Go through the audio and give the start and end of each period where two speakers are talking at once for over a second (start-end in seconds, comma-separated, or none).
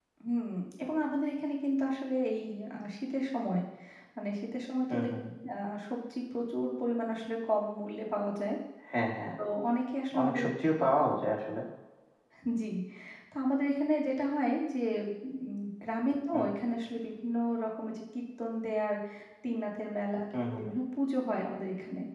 none